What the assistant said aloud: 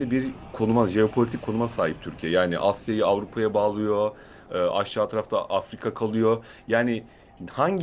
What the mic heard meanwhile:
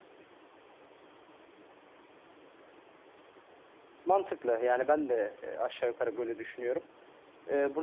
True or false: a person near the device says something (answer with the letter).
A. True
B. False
A